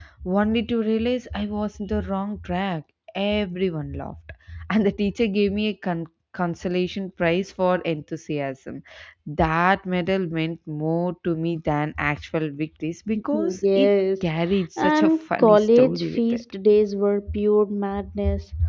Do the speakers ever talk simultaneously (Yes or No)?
Yes